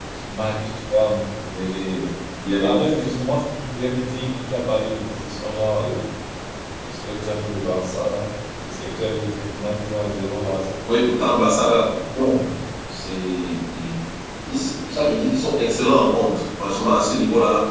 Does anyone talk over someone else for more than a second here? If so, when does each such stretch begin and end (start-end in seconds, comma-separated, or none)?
none